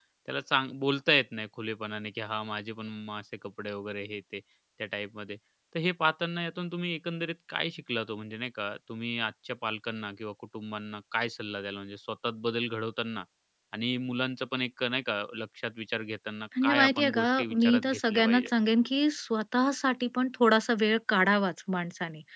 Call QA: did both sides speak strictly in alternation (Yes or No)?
No